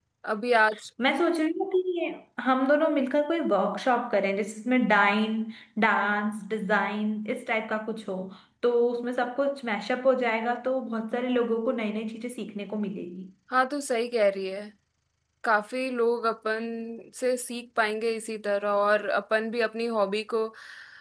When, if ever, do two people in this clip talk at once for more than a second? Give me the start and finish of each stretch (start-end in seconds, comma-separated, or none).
none